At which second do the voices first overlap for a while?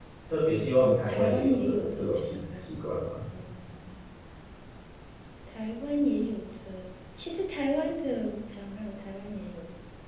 0.8 s

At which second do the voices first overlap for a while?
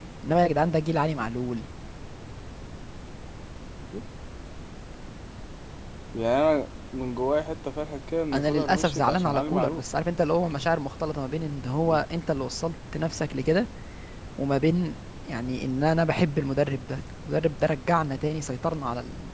8.3 s

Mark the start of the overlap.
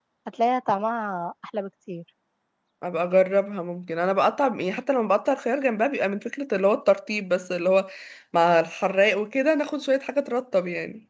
none

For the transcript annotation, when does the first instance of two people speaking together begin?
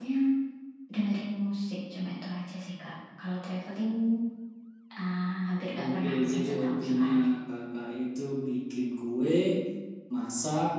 5.8 s

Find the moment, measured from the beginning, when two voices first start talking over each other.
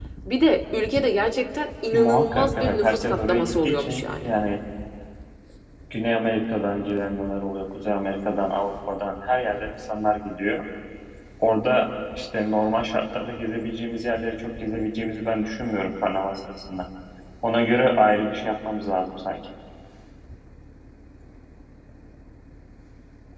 1.9 s

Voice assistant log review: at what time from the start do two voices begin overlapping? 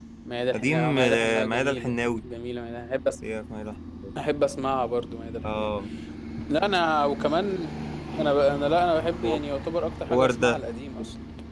0.5 s

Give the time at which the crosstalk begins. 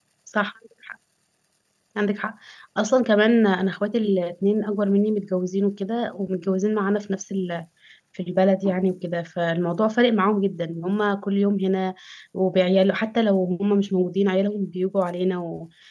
none

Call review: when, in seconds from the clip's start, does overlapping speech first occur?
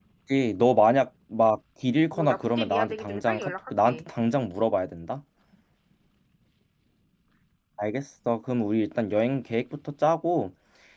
2.1 s

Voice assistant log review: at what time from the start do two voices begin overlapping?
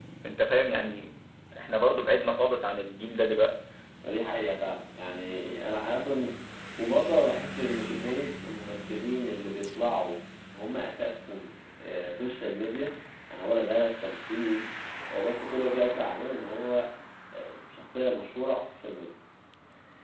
none

